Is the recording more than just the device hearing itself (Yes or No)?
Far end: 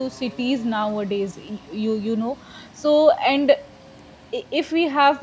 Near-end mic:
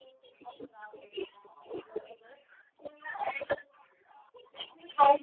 No